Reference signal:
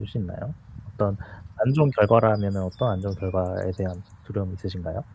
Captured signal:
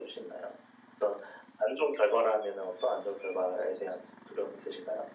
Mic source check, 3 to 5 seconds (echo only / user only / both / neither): echo only